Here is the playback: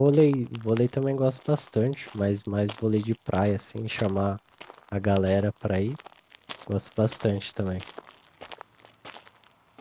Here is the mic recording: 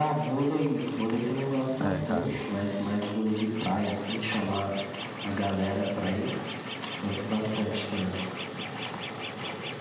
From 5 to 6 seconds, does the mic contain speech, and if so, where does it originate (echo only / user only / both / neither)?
echo only